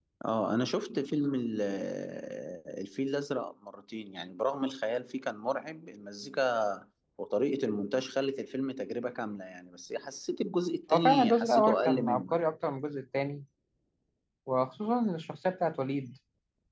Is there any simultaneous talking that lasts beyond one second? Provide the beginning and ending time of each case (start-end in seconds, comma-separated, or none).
10.9-12.5